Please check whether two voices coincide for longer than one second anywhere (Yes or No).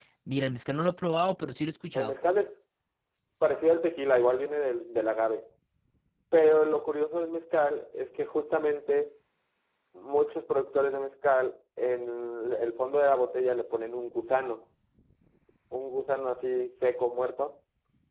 No